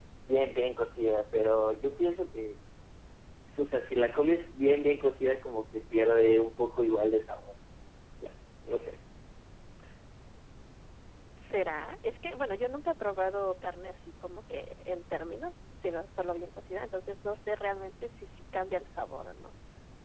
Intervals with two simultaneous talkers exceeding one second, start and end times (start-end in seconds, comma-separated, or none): none